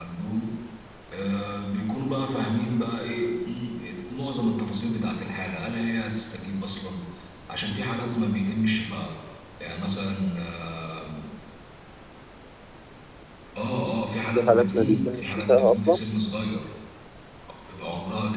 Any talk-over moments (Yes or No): Yes